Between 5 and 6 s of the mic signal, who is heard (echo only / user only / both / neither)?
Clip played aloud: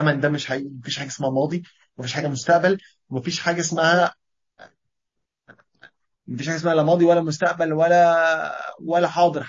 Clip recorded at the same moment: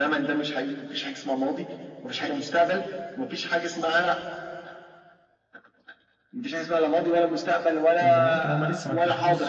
neither